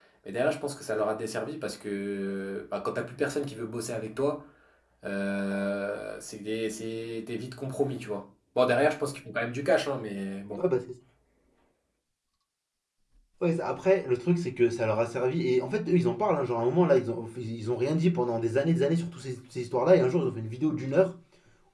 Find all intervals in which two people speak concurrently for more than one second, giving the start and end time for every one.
none

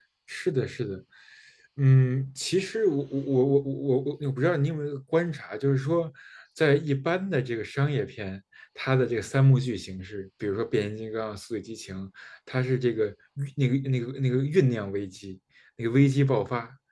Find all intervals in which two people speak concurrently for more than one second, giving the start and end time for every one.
none

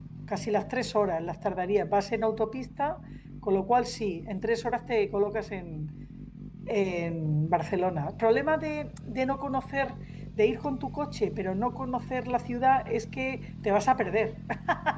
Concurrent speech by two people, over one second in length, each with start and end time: none

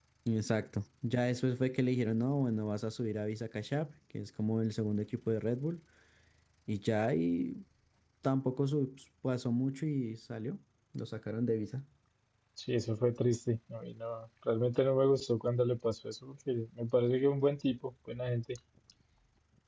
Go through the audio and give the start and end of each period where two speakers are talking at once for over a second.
none

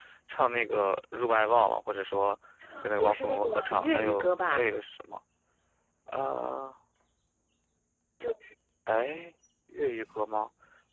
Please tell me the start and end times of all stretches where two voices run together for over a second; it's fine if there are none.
3.0-4.6

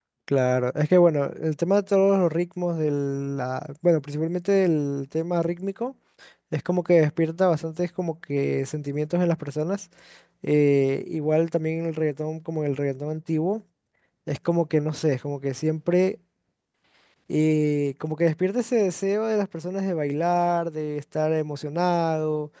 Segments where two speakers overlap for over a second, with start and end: none

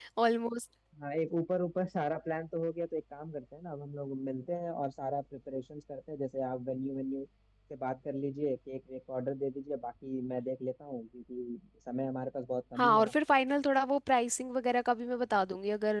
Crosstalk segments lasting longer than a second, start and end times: none

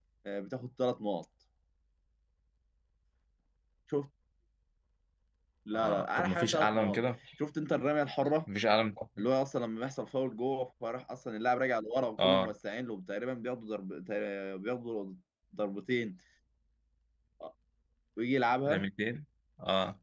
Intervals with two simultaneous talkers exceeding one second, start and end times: 5.7-7.0

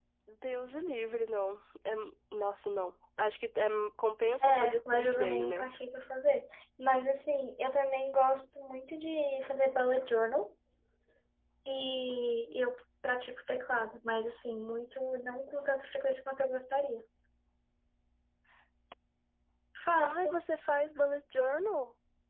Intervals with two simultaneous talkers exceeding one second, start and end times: 4.4-5.7

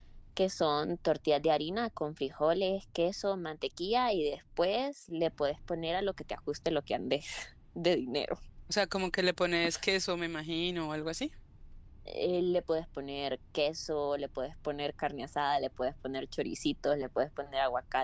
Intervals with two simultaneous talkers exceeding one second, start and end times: none

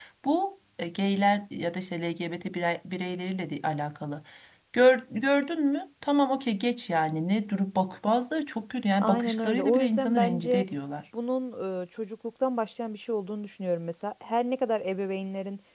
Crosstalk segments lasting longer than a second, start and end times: 9.0-10.6

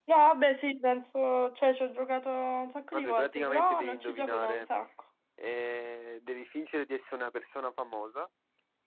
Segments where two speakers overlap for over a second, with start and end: 2.9-4.6

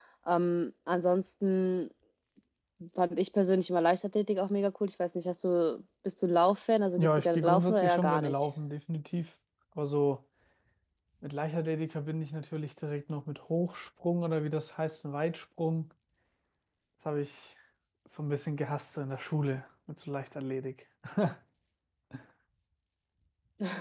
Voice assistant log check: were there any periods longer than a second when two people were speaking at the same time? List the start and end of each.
7.0-8.3

